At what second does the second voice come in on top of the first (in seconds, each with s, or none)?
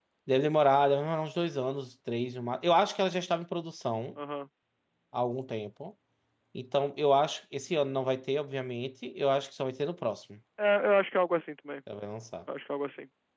none